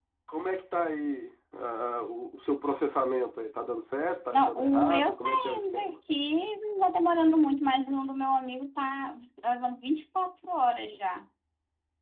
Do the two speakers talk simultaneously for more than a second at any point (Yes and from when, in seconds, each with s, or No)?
Yes, from 4.3 s